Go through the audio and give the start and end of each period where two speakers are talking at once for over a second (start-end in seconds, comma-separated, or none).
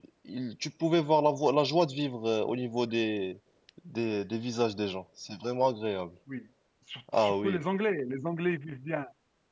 none